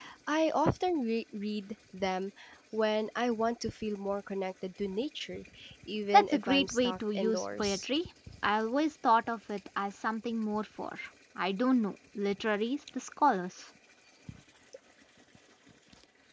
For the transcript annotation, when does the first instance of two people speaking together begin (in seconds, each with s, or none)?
6.1 s